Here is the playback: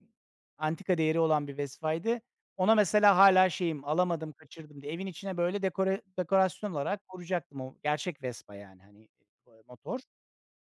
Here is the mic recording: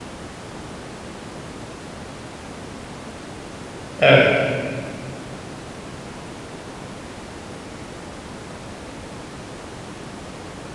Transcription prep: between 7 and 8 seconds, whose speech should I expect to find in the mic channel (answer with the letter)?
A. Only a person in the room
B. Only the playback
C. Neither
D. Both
C